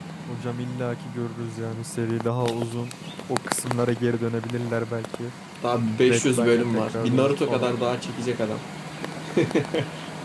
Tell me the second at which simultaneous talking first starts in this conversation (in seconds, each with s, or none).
6.1 s